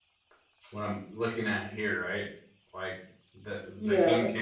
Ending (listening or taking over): taking over